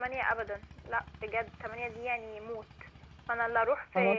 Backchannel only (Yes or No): Yes